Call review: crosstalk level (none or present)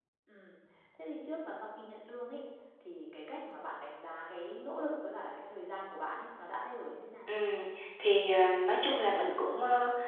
none